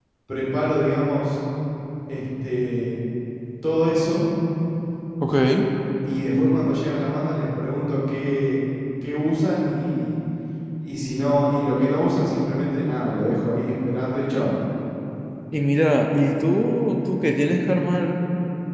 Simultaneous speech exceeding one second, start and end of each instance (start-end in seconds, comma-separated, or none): none